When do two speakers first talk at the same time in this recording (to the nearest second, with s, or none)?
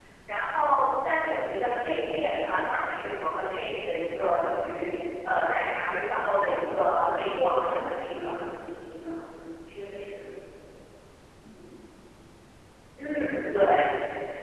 7 s